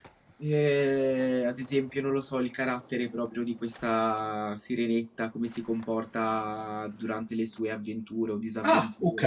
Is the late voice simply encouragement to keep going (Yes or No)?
Yes